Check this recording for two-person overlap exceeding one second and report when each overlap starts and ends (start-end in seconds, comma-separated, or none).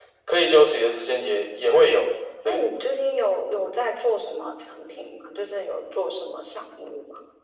none